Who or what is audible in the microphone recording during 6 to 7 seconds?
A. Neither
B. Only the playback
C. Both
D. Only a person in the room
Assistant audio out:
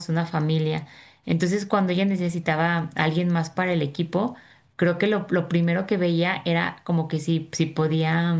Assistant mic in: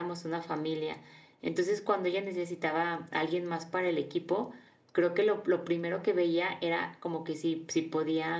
B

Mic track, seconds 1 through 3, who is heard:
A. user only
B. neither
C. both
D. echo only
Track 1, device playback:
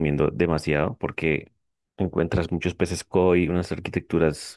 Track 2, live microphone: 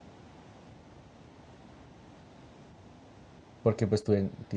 B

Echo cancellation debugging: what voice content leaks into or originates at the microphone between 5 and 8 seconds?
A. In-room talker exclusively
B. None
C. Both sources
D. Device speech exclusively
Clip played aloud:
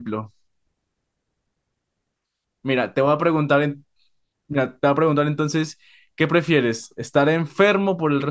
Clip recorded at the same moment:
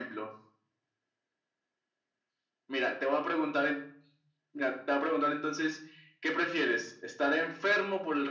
D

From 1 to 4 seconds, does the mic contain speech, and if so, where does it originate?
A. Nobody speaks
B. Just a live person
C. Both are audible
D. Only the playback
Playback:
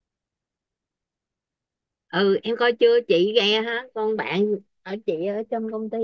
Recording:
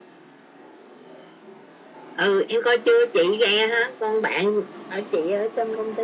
D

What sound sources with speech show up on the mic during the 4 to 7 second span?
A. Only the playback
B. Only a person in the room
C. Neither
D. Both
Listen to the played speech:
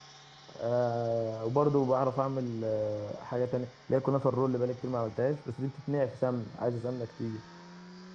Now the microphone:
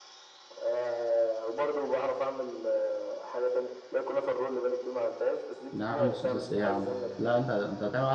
D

